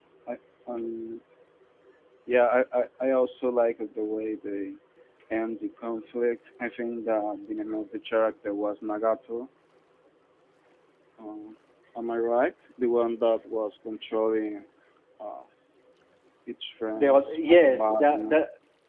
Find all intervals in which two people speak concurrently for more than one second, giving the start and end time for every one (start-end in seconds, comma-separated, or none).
17.0-18.4